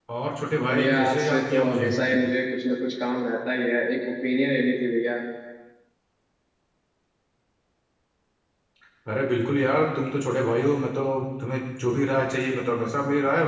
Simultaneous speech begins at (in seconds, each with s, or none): 0.7 s